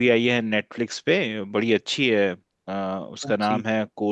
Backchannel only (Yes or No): Yes